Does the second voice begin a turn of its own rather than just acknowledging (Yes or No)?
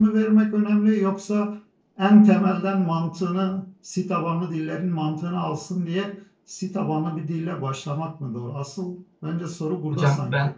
Yes